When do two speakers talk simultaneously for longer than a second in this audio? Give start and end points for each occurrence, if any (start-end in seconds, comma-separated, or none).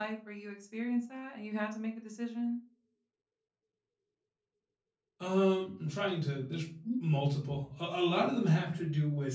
none